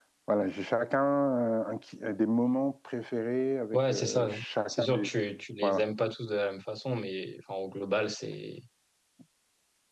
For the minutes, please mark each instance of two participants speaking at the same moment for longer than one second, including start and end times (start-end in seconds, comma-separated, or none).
3.7-5.1